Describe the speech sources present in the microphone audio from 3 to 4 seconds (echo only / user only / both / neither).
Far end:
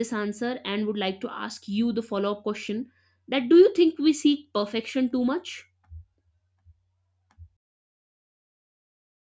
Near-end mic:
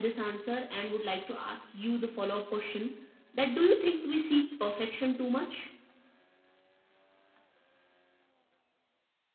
echo only